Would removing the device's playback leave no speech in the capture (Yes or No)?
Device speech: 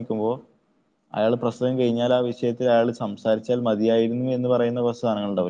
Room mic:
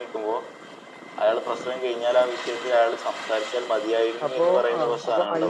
No